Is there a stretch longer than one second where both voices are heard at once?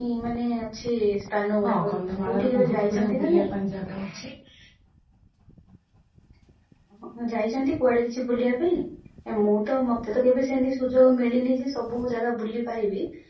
Yes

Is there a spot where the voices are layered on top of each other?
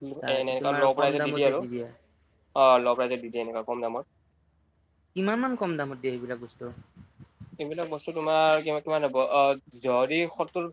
Yes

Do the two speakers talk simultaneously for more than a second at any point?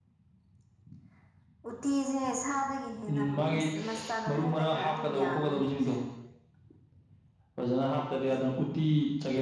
Yes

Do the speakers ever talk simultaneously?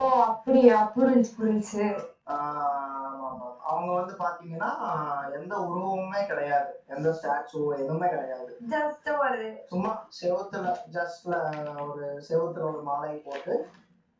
No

